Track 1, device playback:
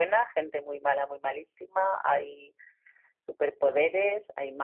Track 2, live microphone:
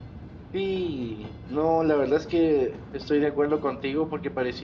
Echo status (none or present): none